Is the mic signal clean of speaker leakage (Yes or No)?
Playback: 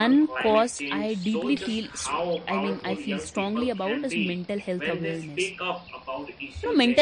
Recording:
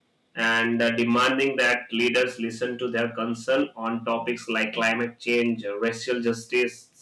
Yes